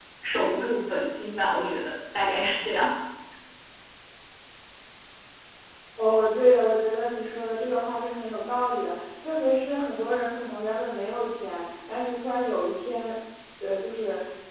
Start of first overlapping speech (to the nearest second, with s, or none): none